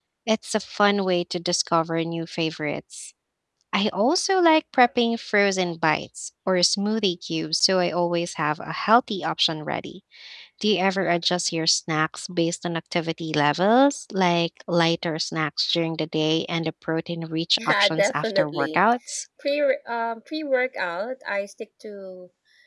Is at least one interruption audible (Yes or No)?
Yes